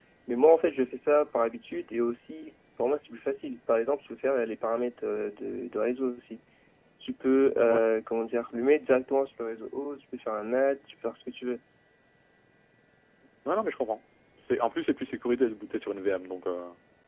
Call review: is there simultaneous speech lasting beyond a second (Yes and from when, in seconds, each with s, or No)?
No